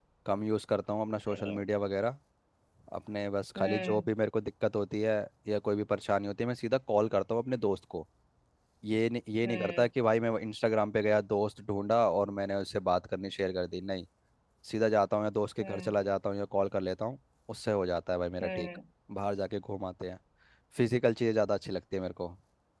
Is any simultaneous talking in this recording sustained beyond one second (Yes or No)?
No